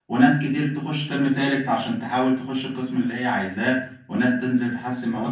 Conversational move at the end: listening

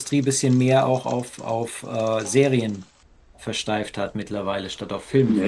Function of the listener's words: taking over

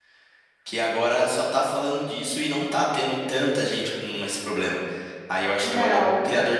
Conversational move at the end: listening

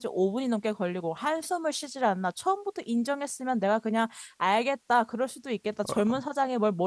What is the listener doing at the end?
listening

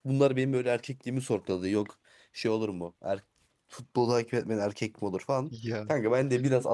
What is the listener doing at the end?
listening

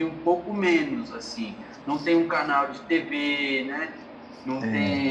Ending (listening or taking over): listening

